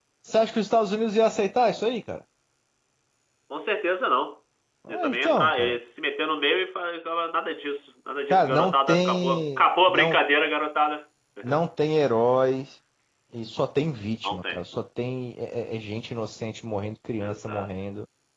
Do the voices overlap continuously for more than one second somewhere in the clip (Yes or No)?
Yes